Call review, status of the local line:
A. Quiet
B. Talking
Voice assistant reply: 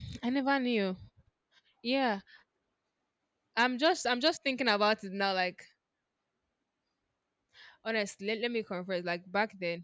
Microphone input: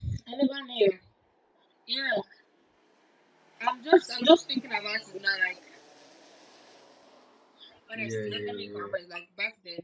B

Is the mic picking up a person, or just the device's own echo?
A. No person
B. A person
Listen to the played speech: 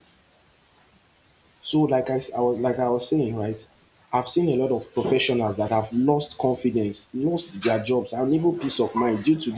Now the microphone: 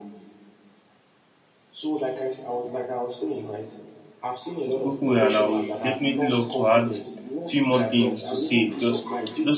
B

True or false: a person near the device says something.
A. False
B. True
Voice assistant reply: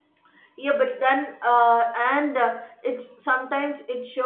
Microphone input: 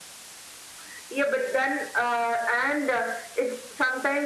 A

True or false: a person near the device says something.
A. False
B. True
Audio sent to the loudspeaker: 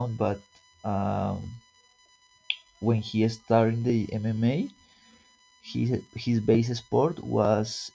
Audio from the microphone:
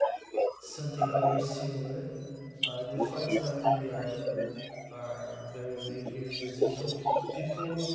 B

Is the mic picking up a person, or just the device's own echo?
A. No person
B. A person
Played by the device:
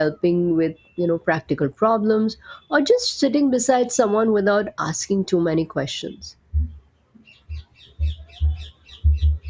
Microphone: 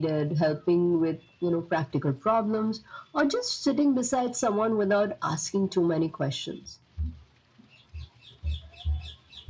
A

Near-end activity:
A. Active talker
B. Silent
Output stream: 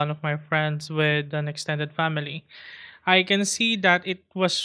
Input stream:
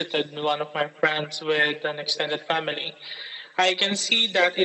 B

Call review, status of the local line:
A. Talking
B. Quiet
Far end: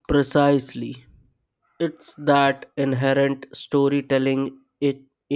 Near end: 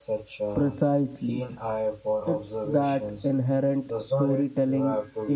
A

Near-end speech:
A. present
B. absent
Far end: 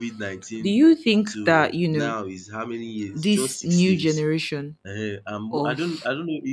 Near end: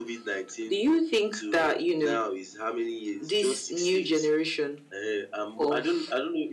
B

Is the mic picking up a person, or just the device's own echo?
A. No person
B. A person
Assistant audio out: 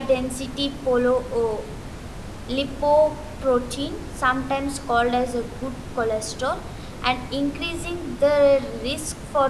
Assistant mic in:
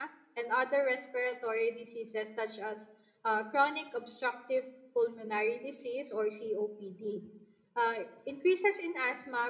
B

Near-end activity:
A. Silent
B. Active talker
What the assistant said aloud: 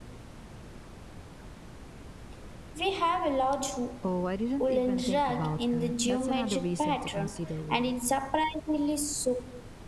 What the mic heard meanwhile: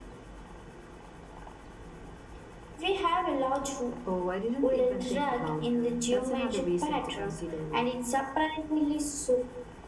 A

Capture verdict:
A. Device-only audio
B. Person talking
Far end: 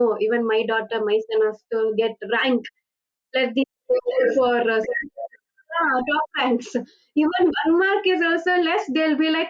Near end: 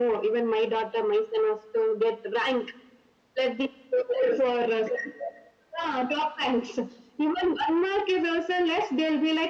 A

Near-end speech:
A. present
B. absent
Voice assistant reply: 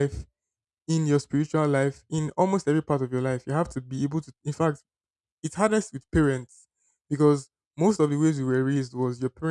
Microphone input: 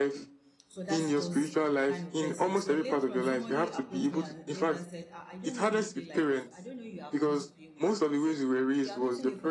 A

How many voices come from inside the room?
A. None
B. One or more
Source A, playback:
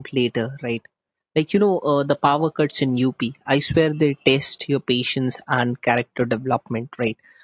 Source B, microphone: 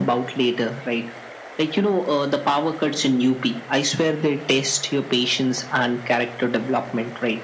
A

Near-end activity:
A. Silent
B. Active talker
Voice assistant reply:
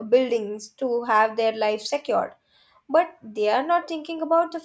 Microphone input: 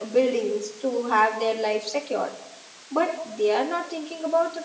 A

